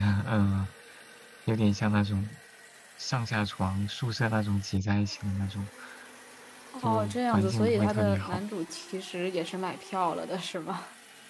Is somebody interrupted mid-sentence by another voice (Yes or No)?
Yes